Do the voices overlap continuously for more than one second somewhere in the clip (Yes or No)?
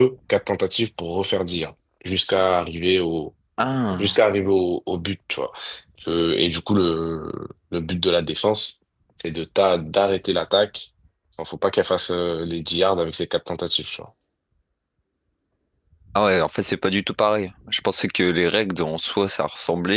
No